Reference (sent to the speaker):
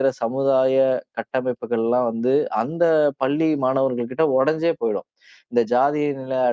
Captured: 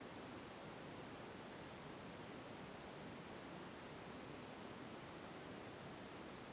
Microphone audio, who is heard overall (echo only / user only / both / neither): neither